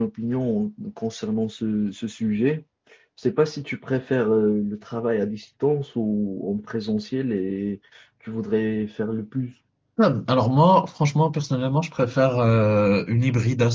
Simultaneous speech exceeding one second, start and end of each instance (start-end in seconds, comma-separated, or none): none